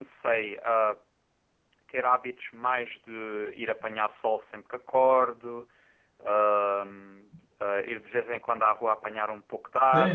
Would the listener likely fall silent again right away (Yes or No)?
No